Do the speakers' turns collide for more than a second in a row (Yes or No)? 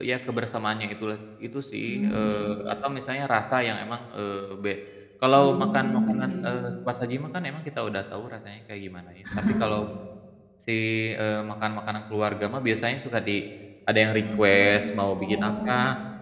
Yes